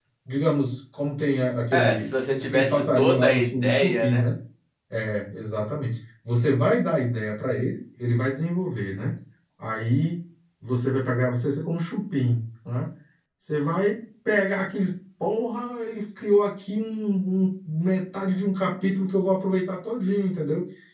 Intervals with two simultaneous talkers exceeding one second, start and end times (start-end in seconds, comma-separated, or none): 1.7-4.2